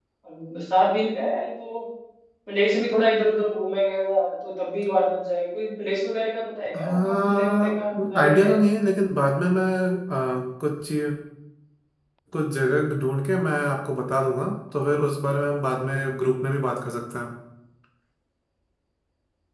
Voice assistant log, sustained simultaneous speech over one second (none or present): present